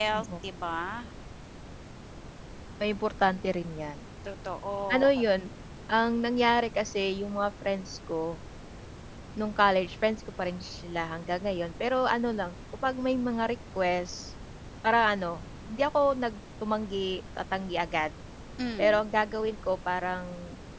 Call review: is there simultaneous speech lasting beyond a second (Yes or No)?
No